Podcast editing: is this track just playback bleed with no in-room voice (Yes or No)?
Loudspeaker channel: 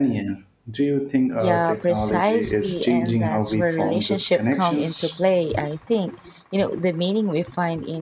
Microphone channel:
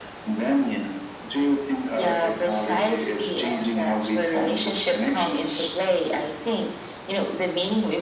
Yes